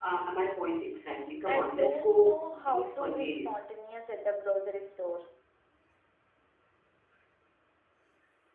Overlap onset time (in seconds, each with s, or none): 1.5 s